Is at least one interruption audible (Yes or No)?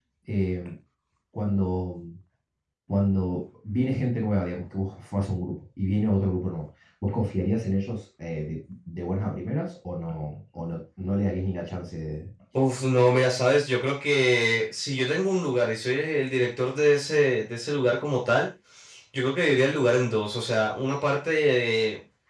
No